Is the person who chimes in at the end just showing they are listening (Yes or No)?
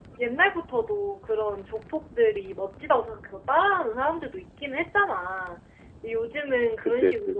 Yes